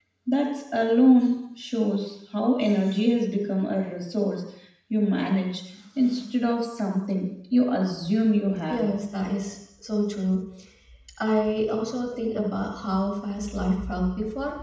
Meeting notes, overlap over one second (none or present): none